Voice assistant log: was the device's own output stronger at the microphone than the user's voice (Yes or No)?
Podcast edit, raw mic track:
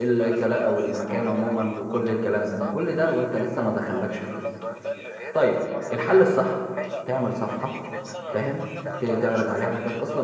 No